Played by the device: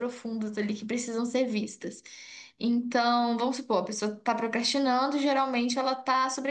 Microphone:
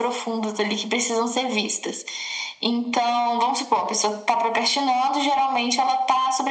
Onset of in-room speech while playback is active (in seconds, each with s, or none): none